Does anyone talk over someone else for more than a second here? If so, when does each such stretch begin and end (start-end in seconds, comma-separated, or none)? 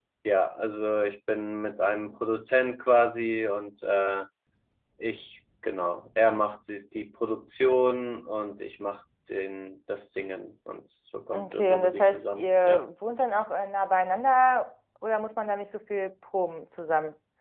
11.3-12.8